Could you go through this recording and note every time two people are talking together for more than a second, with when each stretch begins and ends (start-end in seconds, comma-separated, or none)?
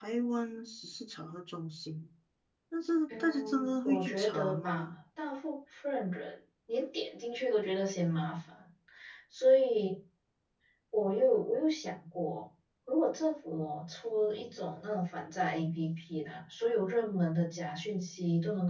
3.2-5.0